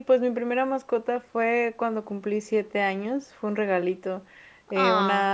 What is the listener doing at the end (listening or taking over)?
listening